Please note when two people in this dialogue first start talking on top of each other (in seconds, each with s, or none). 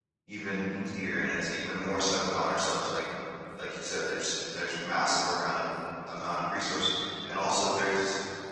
none